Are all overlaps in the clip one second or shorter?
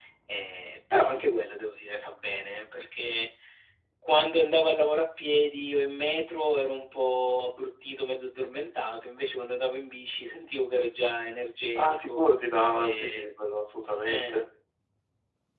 Yes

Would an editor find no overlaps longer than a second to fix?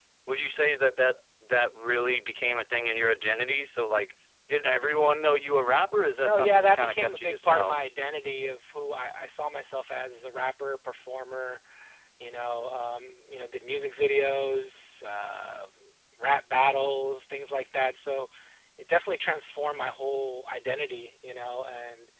No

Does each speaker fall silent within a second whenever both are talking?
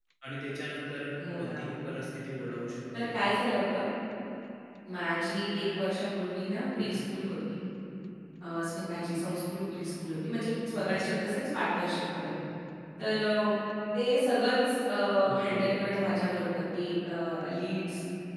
Yes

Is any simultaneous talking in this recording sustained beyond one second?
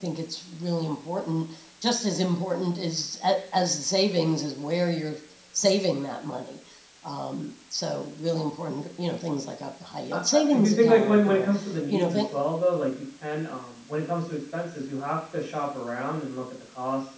Yes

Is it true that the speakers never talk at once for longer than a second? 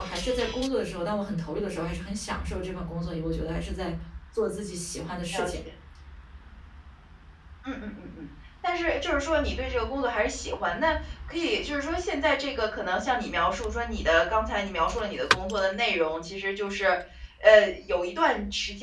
Yes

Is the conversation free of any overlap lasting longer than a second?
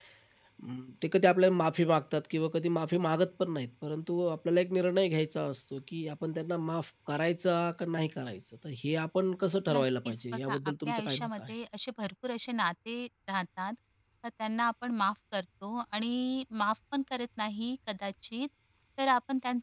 No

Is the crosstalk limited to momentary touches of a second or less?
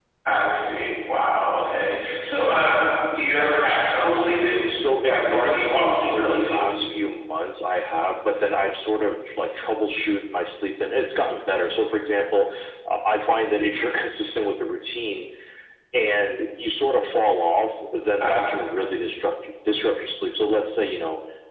No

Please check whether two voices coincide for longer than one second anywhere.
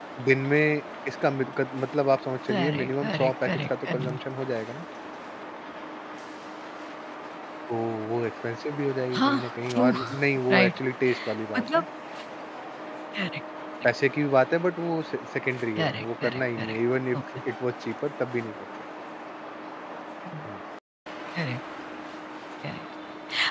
Yes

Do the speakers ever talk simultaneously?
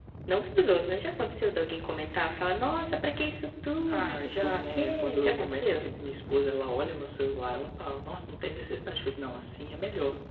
Yes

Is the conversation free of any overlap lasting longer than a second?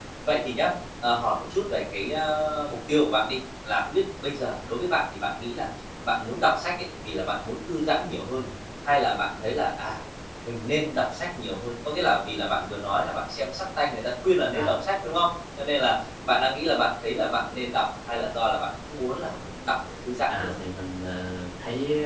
Yes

